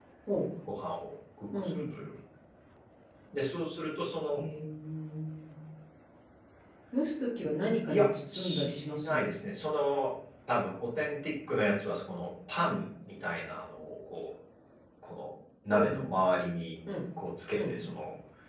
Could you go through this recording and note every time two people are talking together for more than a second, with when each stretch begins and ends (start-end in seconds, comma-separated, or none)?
7.9-9.3